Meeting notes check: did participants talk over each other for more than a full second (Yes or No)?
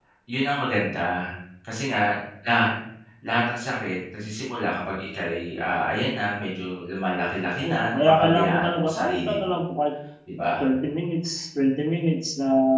Yes